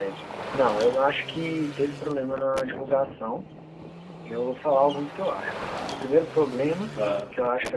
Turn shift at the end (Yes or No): No